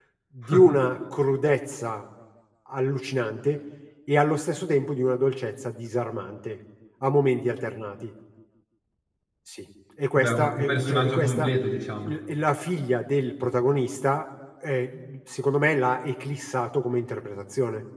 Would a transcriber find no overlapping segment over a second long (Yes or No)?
No